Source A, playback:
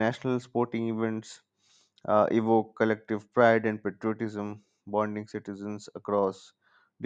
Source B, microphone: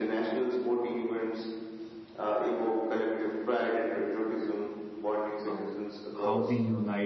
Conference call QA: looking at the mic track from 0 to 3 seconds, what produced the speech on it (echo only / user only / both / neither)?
echo only